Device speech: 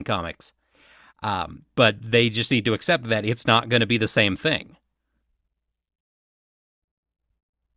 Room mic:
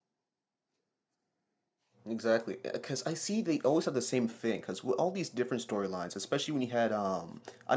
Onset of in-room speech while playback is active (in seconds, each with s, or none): 2.0 s